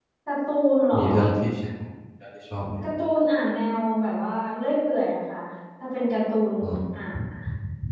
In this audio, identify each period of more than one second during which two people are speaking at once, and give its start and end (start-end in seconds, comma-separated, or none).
none